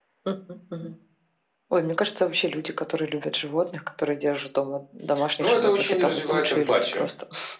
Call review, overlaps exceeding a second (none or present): present